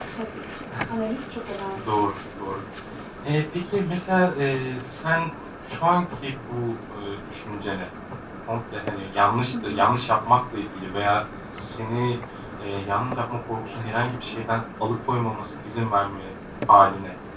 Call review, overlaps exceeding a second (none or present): none